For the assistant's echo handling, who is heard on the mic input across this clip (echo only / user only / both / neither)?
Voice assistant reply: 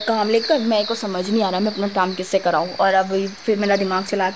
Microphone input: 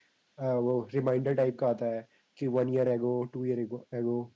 user only